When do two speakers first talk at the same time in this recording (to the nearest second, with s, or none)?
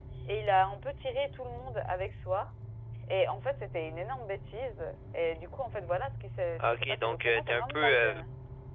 7 s